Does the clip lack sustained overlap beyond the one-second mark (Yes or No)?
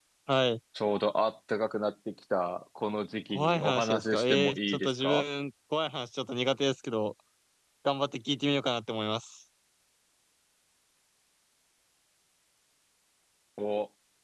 No